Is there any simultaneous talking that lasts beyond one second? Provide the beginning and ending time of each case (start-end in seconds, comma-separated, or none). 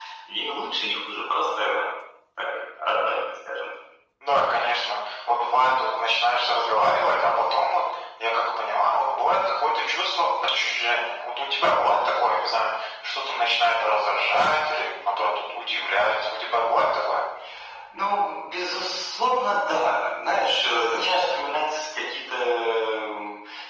none